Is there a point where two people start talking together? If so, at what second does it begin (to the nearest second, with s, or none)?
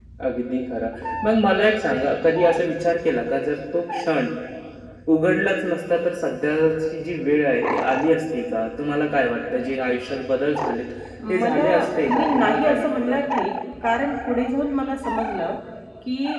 11 s